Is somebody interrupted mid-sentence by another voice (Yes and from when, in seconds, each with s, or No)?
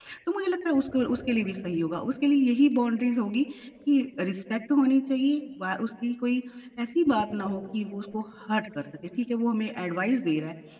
No